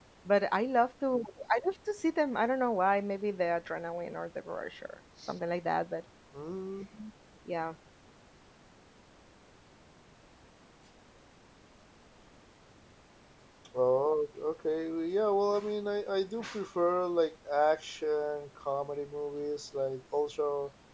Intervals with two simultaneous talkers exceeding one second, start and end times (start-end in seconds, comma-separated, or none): none